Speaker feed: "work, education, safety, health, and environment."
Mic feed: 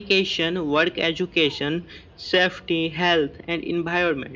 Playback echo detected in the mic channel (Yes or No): Yes